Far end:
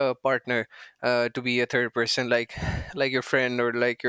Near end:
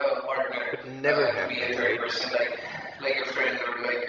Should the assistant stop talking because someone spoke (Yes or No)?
Yes